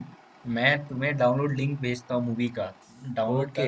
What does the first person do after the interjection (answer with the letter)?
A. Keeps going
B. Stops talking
B